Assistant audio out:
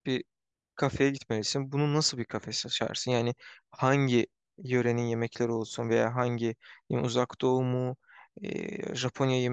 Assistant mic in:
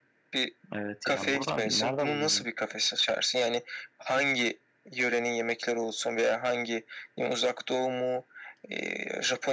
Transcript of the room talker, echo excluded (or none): Evet yani buradan nerede bulacaksın?